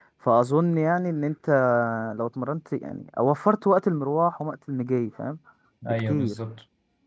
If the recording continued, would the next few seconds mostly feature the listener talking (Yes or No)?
Yes